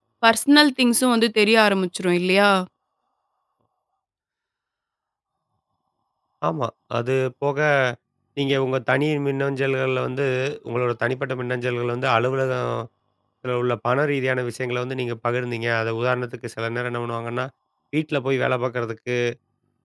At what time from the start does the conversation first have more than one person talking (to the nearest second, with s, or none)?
none